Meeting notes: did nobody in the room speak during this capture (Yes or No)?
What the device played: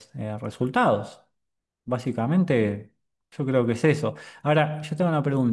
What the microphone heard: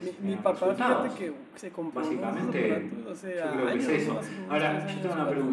No